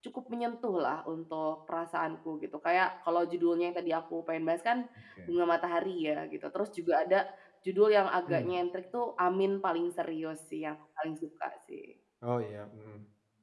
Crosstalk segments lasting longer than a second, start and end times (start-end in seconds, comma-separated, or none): none